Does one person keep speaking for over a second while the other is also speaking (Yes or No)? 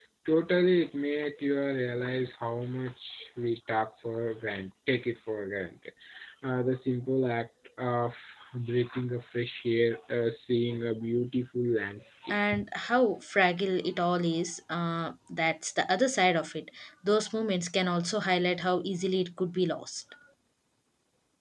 No